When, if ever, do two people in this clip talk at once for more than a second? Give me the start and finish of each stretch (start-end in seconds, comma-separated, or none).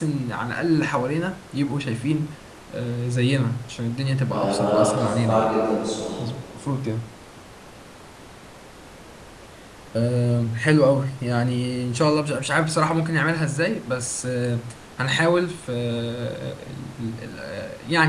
4.3-5.5